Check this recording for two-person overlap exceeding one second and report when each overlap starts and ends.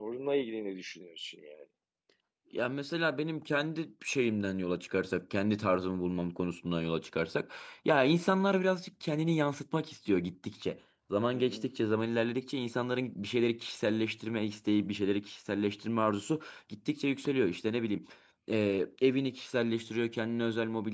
none

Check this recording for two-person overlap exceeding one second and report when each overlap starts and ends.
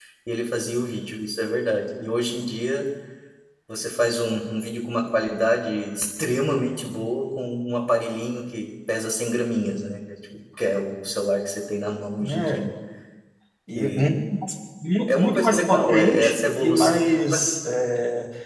15.1-17.4

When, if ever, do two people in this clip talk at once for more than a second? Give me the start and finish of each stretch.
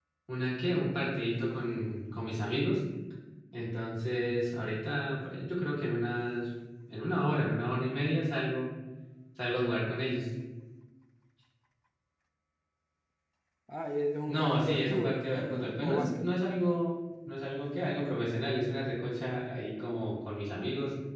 14.3-16.3

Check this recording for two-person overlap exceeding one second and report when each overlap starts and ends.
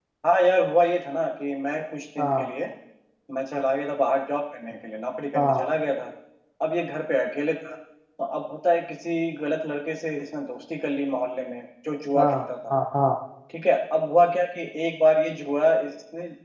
none

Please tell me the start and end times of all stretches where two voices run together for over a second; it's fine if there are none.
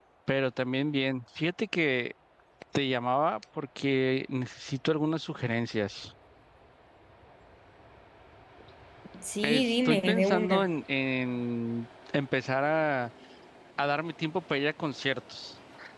9.4-10.7

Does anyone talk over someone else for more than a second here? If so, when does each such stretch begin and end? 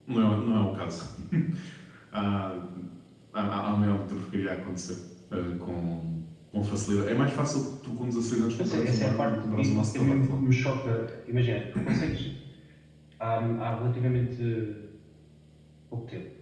8.6-10.2

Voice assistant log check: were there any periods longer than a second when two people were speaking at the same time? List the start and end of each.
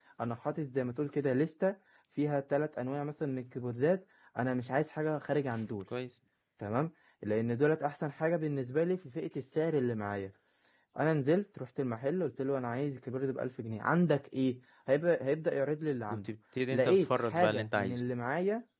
16.7-18.0

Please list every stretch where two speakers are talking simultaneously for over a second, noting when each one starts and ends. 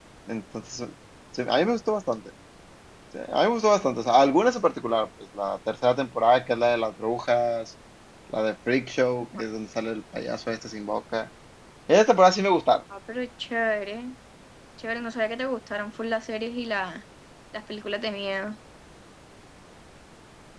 none

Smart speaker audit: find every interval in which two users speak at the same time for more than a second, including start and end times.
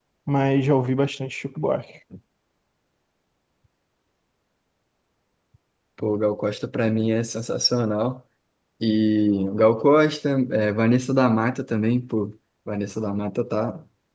none

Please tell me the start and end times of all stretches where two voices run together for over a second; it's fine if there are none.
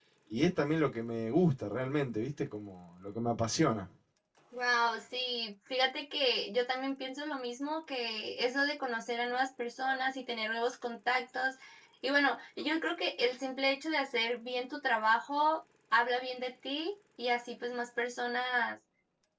none

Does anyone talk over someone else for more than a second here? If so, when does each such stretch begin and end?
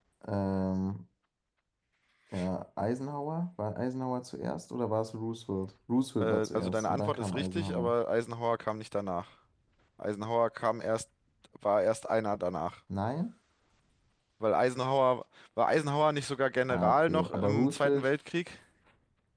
6.2-7.9, 16.7-18.1

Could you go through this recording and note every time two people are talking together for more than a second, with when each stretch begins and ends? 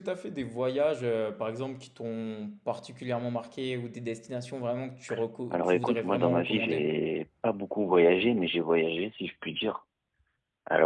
5.5-6.8

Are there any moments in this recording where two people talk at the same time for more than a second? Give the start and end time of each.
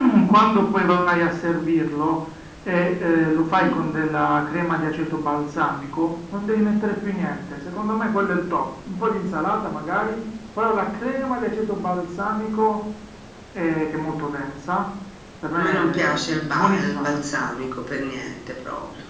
15.6-17.7

